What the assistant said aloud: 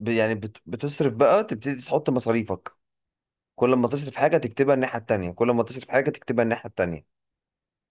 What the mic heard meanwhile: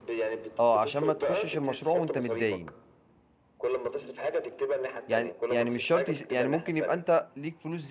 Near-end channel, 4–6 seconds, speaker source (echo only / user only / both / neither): both